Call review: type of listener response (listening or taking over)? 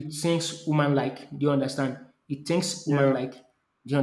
listening